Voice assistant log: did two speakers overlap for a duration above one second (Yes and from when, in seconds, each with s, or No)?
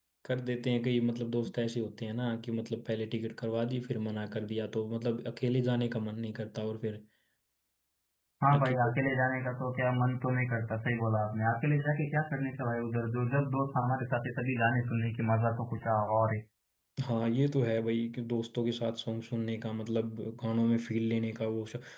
No